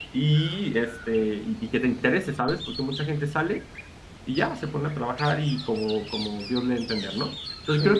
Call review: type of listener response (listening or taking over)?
listening